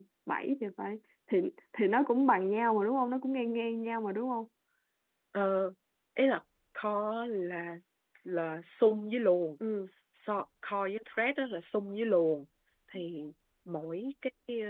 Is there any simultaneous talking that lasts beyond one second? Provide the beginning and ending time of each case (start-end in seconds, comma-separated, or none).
none